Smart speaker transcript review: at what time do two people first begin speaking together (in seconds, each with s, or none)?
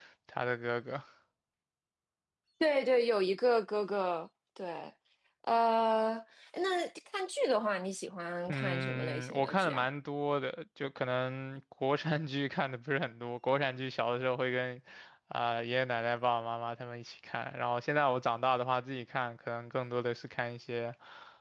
8.5 s